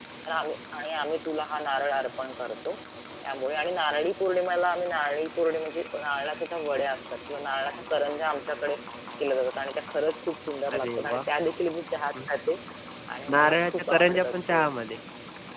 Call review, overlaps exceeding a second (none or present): present